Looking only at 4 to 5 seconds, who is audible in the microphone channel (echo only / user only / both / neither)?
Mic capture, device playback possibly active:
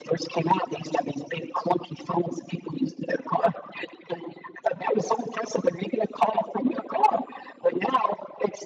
echo only